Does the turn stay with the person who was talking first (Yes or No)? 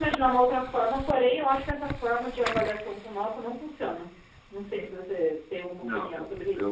No